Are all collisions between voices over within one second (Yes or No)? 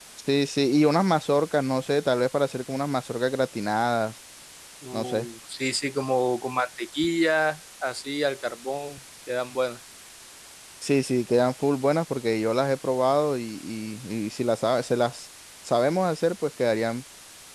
Yes